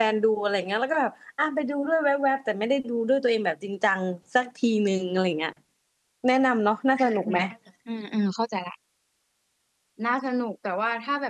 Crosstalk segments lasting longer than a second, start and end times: none

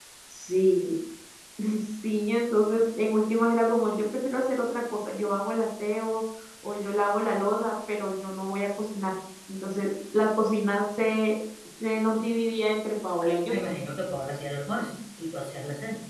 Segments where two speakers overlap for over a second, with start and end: none

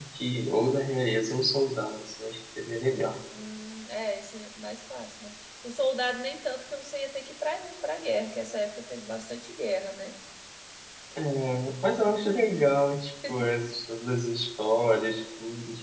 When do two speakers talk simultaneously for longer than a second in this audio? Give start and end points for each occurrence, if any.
none

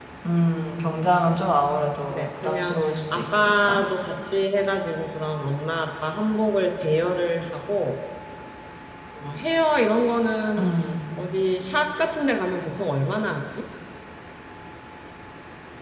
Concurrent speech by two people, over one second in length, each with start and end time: 2.1-3.8

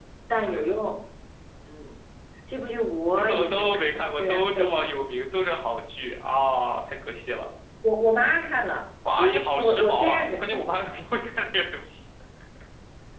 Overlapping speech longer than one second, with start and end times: 3.1-4.8, 9.2-11.0

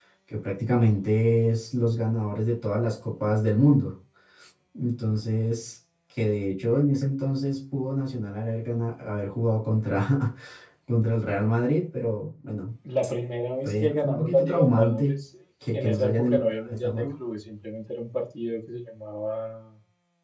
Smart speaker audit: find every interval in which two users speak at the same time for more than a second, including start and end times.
13.7-15.2, 15.7-17.1

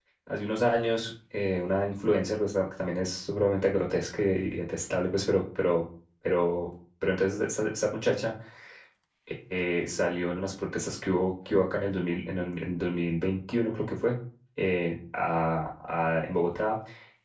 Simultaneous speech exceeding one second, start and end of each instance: none

